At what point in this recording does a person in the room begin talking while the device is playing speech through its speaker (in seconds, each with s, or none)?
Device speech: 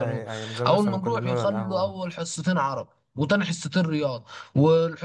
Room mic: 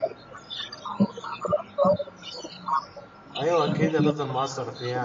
3.4 s